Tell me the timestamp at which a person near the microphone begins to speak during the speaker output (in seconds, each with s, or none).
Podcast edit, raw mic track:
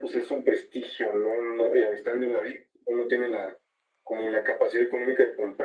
none